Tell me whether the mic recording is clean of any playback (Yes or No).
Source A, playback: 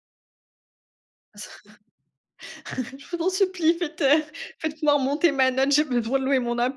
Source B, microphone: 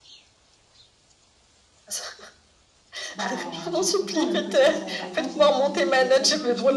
No